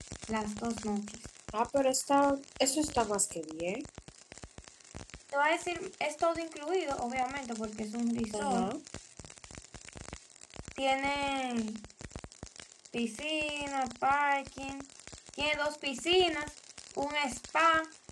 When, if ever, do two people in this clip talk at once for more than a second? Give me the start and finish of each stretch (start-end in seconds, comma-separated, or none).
none